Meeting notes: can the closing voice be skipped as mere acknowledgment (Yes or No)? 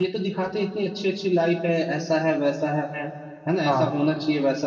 Yes